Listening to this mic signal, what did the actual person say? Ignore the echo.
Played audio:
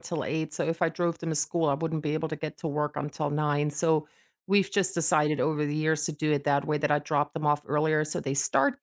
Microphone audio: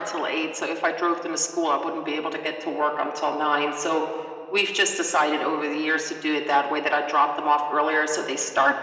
none

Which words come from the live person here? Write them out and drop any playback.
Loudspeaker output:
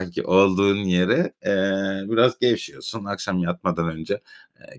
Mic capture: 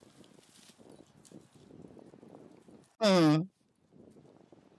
Hıı.

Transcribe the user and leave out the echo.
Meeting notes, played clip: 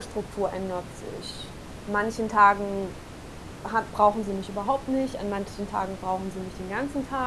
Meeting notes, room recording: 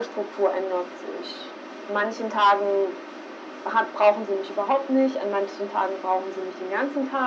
none

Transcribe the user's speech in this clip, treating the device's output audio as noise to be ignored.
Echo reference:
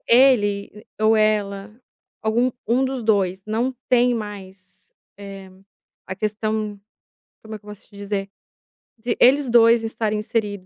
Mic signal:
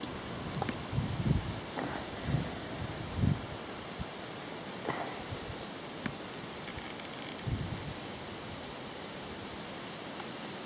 none

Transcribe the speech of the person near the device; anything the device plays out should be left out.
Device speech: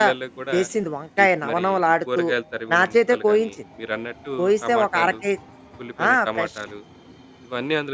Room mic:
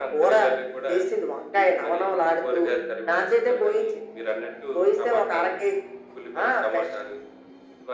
none

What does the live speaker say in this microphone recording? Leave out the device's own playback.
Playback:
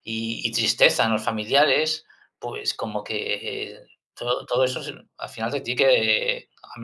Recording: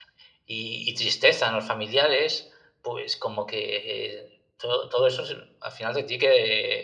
none

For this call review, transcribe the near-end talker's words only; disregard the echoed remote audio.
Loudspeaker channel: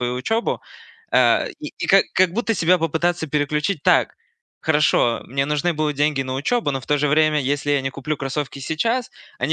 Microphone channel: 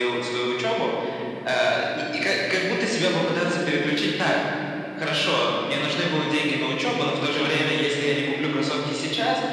none

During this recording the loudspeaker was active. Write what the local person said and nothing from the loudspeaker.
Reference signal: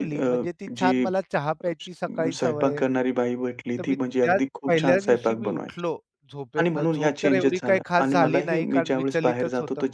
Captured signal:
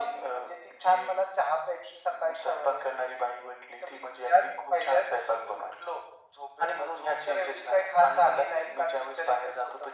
none

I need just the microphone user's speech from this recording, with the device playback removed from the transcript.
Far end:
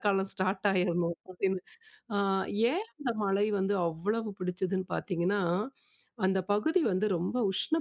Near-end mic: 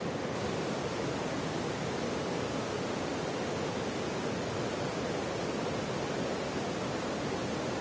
none

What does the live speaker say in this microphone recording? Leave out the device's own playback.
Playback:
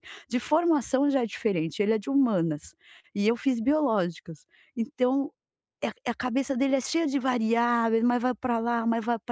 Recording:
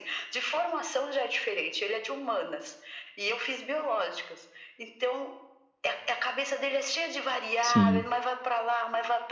Sim.

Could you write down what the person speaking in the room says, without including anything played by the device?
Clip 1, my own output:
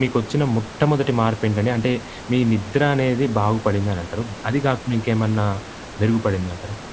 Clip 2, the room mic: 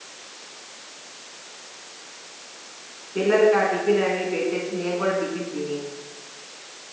పిల్లలకి ఆ టిఫిన్ అవి పెట్టేసి నేను కూడా టిఫిన్ తిని,

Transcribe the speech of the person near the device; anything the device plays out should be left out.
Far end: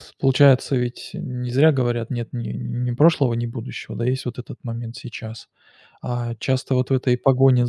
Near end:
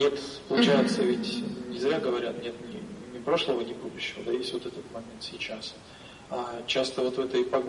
Мгм.

